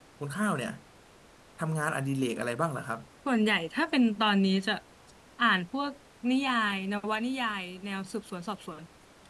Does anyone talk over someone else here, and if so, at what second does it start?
none

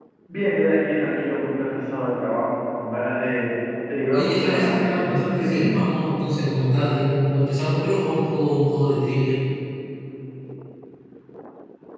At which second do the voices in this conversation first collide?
4.1 s

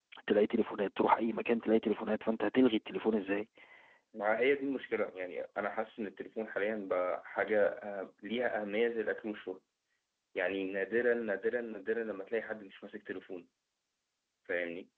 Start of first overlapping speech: none

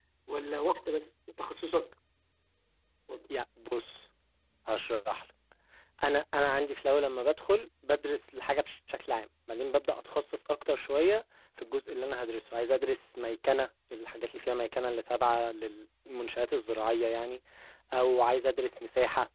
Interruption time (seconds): none

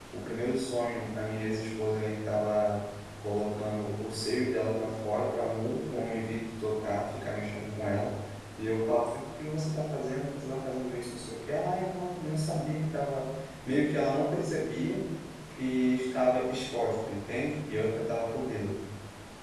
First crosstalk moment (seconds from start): none

